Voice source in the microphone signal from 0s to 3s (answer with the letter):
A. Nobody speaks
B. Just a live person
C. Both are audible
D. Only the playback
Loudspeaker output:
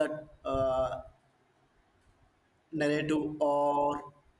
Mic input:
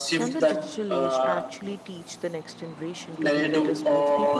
C